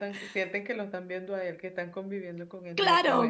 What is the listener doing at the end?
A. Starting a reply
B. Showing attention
A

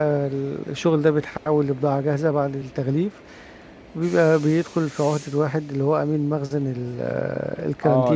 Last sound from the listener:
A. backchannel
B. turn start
B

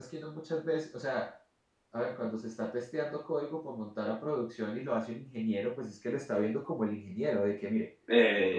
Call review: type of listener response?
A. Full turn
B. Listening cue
B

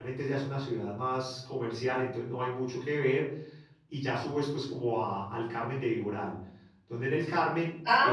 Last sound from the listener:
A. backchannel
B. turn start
B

